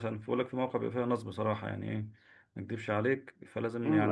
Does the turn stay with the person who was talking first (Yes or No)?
No